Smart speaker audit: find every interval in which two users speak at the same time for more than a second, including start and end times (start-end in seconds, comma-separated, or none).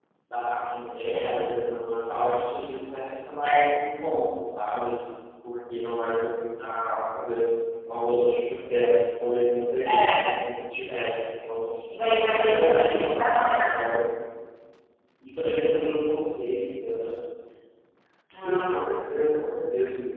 12.3-13.8